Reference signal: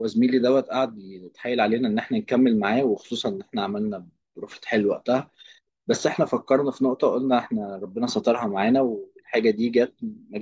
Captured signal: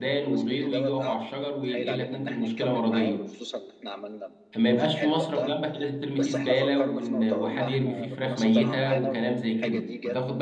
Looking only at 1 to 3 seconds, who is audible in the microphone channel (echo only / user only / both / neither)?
both